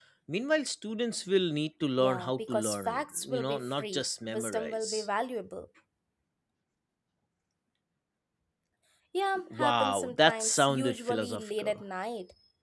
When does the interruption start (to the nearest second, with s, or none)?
2 s